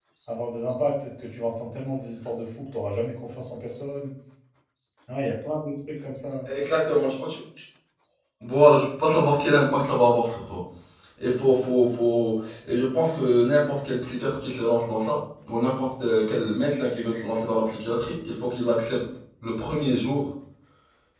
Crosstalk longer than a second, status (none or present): none